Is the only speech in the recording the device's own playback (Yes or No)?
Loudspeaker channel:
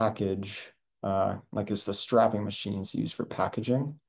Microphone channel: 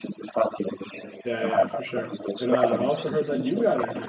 No